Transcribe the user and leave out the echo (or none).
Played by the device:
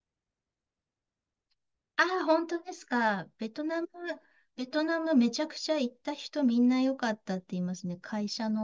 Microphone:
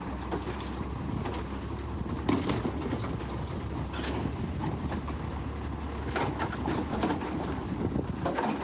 none